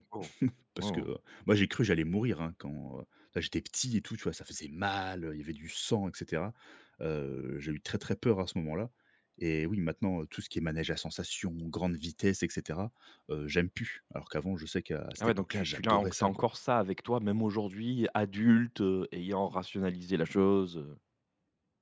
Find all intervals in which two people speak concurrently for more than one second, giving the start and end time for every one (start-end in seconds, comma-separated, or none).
15.2-16.4